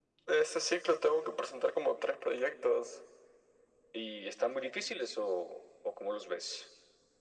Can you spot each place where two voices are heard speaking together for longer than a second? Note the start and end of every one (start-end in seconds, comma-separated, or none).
none